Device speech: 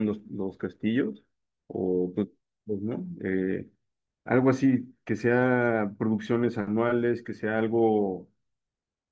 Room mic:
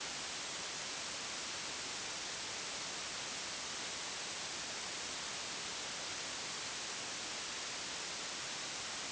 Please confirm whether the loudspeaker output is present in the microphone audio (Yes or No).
No